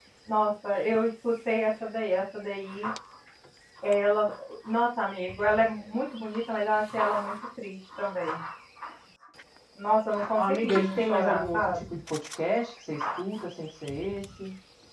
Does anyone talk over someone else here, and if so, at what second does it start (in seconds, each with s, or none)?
10.4 s